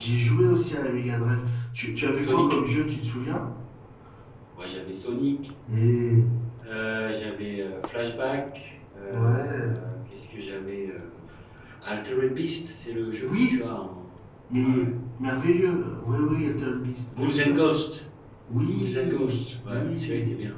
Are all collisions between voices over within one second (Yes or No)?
No